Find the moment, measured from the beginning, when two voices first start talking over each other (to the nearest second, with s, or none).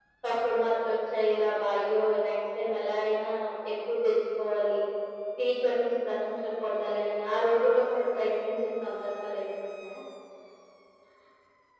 none